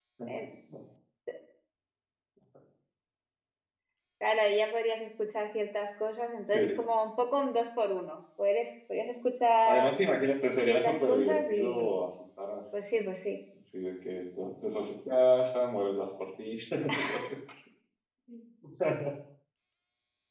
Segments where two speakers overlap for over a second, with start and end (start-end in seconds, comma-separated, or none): 10.6-12.0